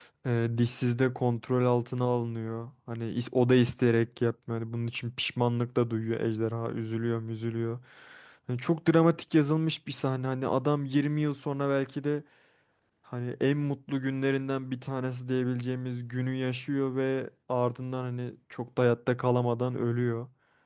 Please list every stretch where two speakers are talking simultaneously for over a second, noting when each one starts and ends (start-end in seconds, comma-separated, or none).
none